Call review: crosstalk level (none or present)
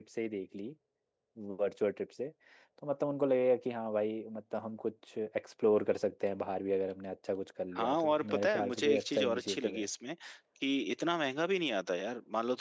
present